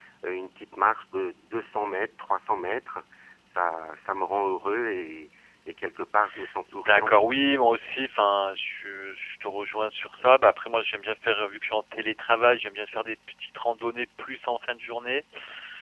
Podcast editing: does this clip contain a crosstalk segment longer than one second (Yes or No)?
No